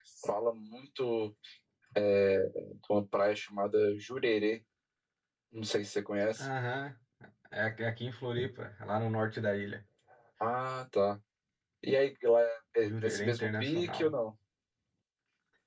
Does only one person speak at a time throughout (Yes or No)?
No